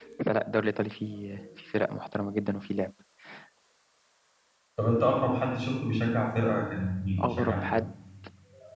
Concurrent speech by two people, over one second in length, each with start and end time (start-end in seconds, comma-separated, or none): none